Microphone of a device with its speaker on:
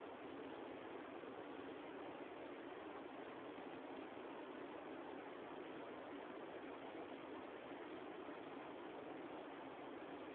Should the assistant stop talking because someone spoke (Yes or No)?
No